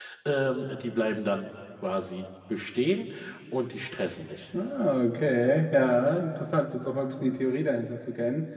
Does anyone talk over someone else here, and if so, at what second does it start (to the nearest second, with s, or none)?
none